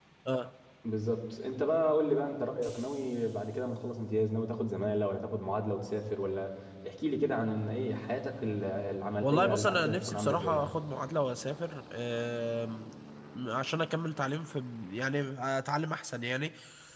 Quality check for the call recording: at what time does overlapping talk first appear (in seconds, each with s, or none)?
9.2 s